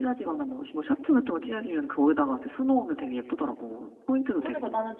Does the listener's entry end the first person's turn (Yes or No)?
Yes